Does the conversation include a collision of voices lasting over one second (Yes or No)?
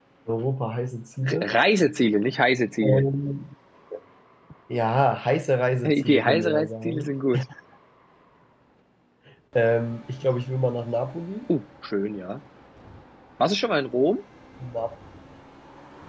Yes